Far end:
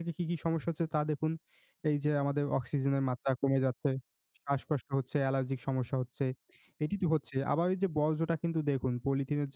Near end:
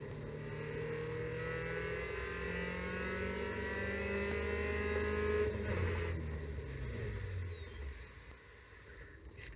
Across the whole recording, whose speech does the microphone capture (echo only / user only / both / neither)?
neither